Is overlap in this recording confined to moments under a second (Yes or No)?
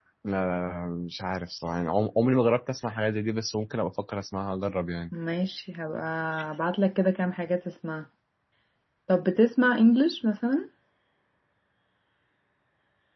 Yes